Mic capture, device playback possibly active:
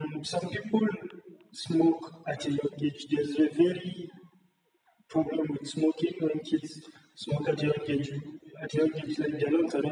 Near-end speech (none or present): none